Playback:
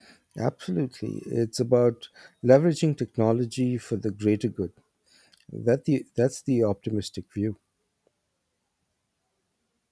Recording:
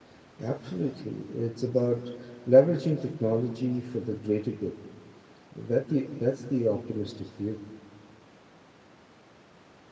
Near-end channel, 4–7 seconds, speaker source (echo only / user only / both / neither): echo only